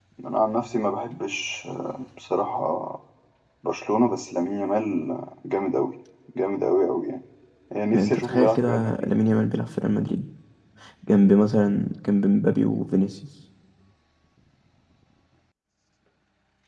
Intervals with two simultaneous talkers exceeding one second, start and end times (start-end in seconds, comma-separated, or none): 7.9-9.1